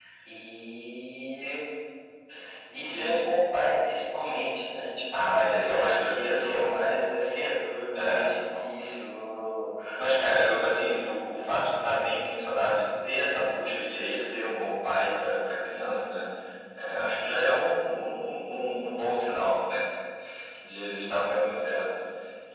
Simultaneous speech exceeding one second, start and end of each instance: 5.2-7.1

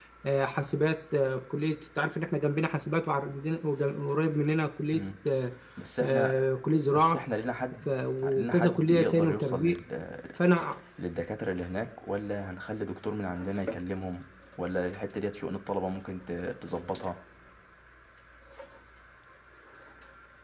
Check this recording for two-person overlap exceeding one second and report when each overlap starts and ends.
8.4-9.8

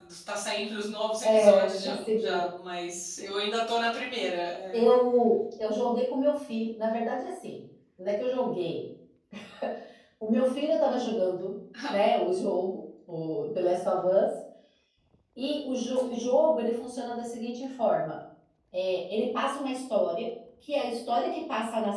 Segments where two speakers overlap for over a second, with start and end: 1.2-2.5

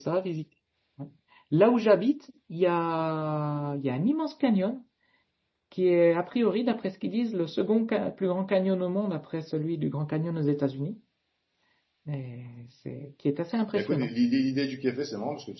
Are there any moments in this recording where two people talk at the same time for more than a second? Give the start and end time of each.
none

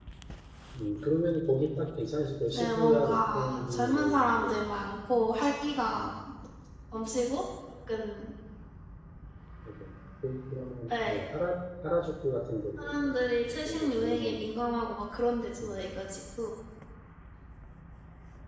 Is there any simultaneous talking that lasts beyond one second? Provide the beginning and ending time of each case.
2.5-4.7, 12.8-14.4

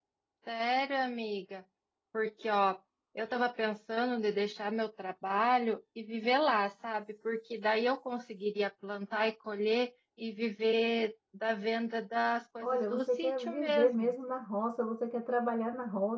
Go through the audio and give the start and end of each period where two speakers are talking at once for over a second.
12.6-14.1

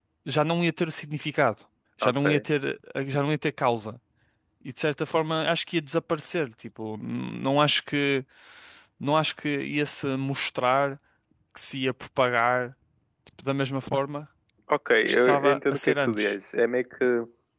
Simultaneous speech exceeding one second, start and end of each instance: 15.1-16.3

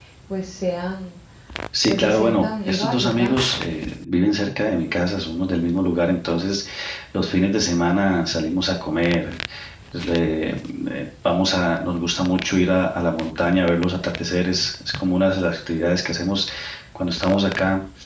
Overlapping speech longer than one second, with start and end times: 1.9-3.3

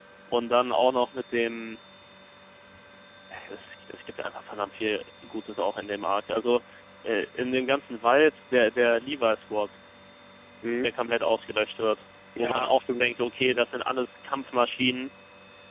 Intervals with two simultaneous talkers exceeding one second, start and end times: 12.4-13.6

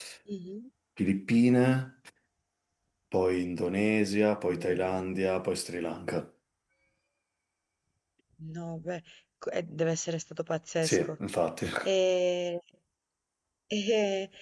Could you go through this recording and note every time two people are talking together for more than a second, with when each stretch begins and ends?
none

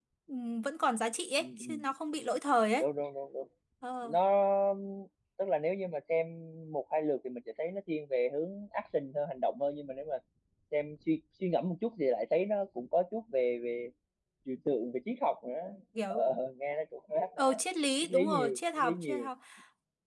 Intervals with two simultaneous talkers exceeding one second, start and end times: 18.0-19.3

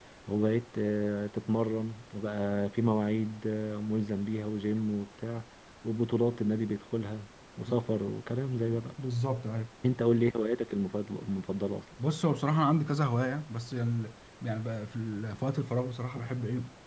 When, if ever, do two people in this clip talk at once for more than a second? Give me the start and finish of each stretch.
none

